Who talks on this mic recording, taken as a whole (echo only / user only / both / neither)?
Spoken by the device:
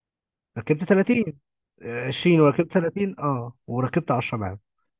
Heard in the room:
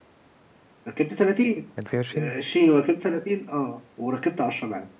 both